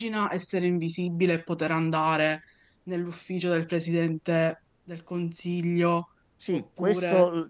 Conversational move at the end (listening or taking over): taking over